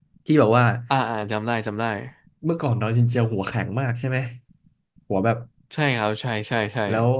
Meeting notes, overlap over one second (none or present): none